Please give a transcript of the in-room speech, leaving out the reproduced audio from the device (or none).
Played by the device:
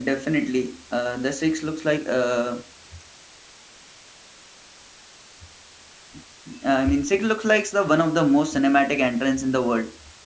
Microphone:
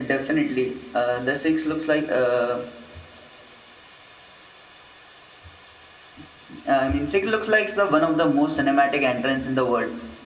none